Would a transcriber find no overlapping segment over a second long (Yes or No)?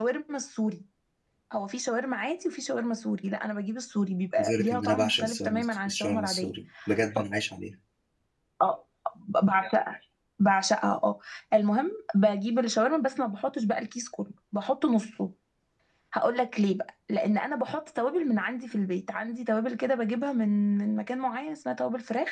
No